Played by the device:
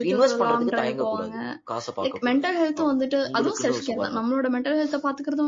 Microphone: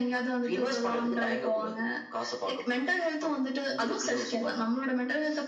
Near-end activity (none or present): none